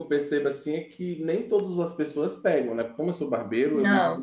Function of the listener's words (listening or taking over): listening